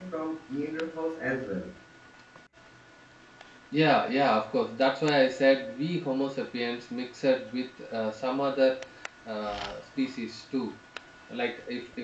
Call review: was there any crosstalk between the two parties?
No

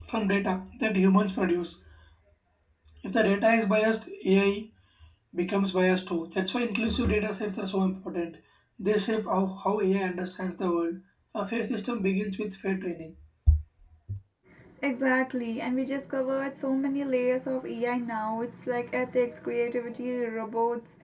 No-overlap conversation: Yes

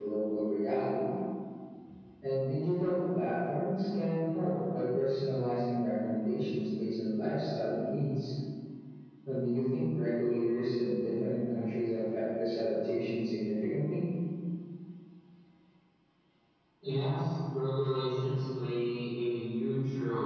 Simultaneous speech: No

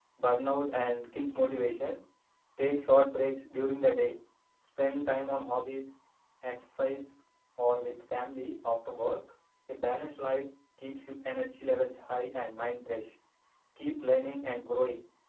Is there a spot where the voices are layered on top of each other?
No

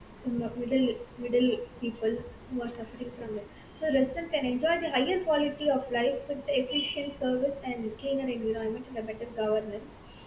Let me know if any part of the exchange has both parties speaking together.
No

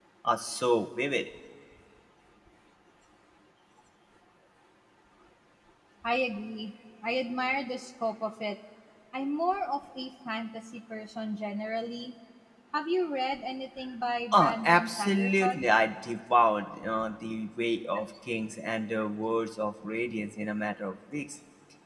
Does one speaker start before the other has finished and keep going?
Yes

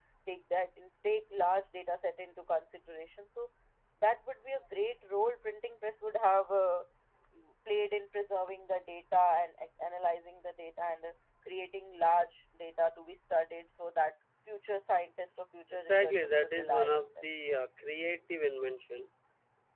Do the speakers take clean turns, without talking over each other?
No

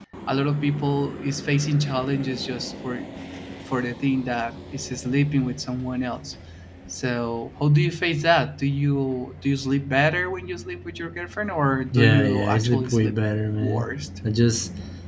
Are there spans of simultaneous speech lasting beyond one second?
Yes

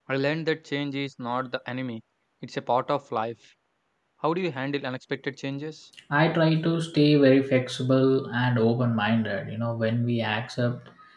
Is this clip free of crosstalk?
Yes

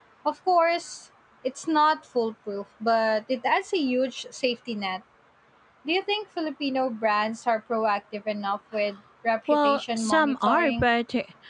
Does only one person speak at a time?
No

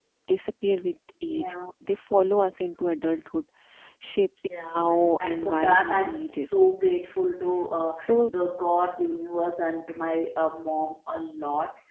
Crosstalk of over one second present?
Yes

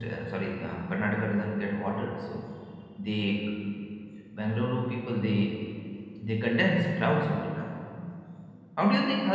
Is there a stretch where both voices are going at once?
No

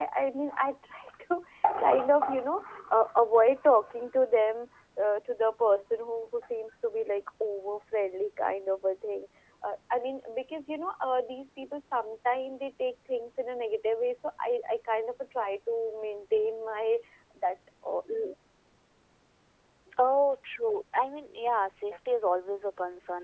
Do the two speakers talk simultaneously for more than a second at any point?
No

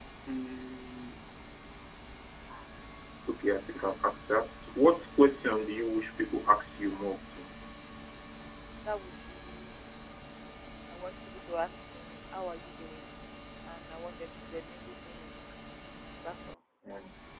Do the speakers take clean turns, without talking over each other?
Yes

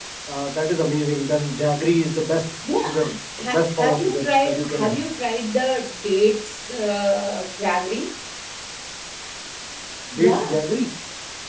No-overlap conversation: No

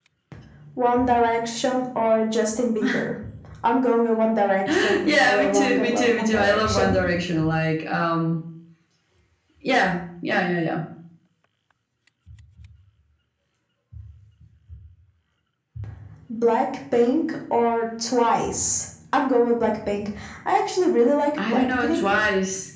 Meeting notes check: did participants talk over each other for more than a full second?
Yes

